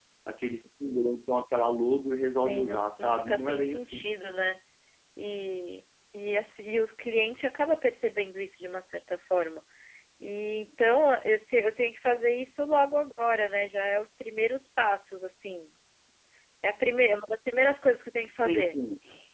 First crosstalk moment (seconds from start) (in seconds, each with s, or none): 2.4 s